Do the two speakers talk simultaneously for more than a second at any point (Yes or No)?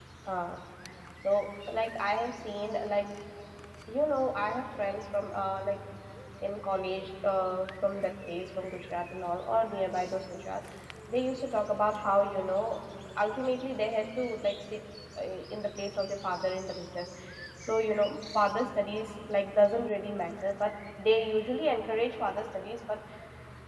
No